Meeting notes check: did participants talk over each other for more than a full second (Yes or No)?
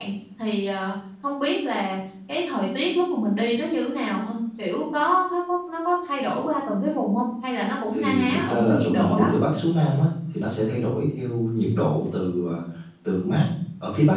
Yes